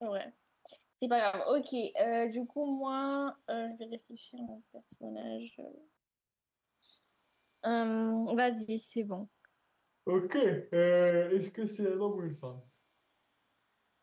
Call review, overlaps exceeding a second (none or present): none